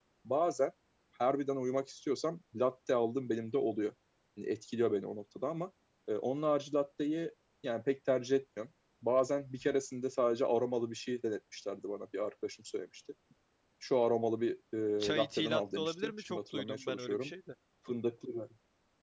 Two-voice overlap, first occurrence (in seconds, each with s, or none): 15.0 s